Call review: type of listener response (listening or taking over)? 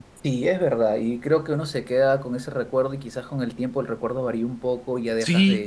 taking over